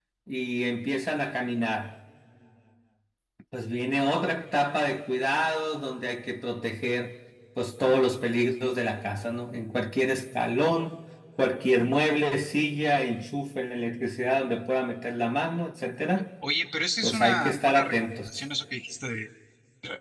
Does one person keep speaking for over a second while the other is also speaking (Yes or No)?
Yes